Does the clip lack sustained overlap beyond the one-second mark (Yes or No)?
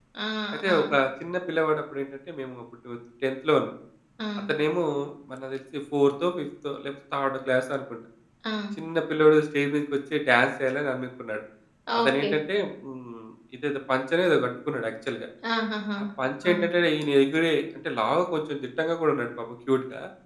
Yes